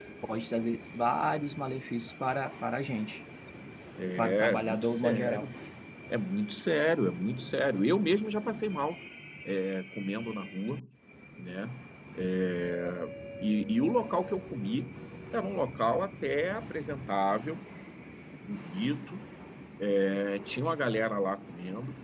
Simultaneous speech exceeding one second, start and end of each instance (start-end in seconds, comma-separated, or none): 4.2-5.5